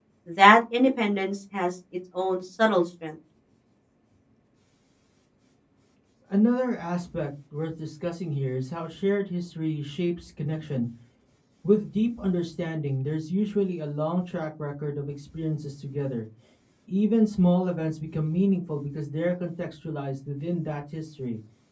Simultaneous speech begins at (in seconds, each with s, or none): none